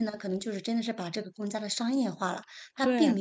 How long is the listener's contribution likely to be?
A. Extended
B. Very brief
B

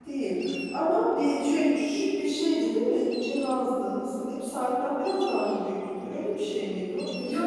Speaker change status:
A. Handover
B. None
A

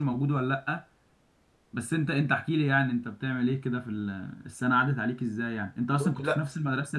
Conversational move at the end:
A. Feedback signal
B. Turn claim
A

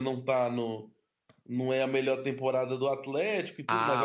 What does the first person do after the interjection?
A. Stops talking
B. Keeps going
A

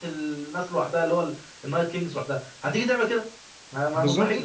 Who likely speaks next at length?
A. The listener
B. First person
A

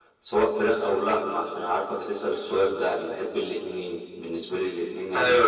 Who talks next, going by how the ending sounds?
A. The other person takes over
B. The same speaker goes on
B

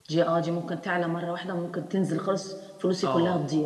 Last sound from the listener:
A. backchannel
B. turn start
B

